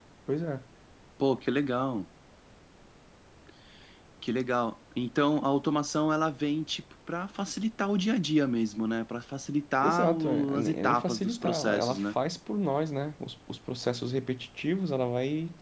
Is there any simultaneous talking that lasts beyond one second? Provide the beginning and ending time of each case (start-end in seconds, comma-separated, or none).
9.8-12.2